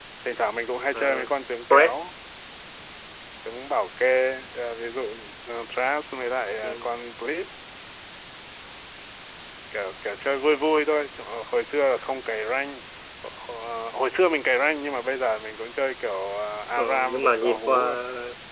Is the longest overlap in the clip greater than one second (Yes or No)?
Yes